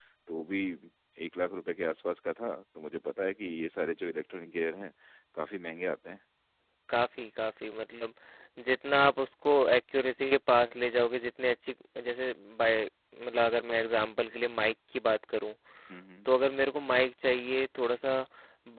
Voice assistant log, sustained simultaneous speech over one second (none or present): none